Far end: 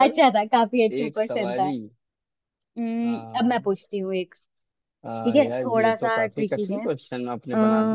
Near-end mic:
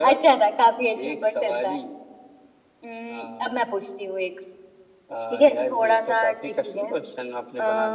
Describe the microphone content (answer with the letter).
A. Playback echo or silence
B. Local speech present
A